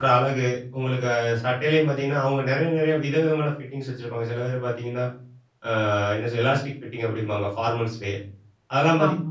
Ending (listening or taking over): listening